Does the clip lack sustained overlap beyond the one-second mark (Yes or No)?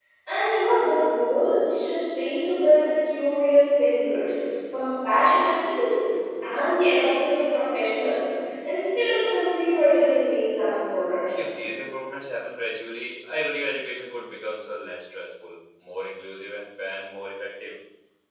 Yes